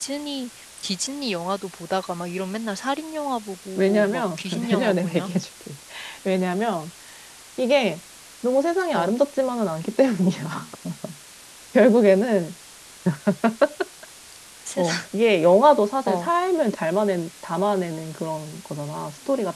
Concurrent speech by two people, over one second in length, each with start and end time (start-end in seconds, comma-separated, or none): 3.8-5.3